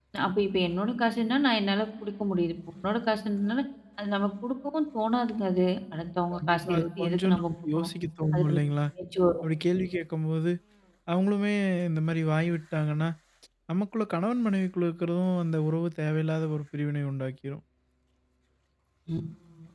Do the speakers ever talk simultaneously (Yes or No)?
Yes